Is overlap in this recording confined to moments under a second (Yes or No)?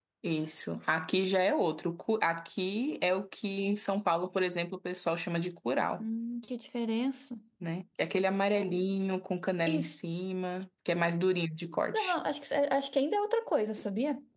Yes